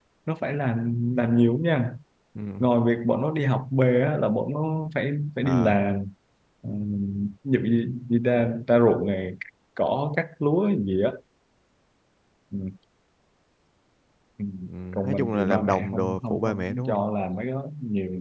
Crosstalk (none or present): present